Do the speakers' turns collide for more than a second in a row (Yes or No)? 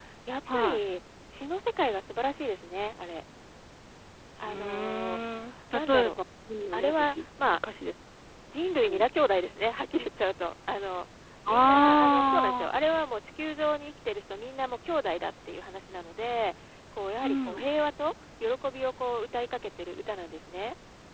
Yes